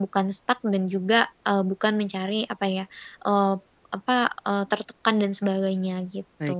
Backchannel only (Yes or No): No